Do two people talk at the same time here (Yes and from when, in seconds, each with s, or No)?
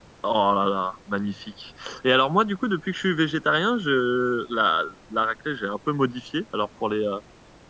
No